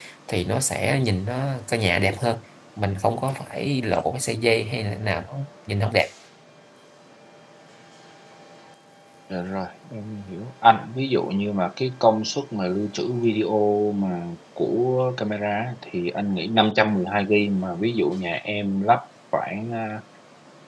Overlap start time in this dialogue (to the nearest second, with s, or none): none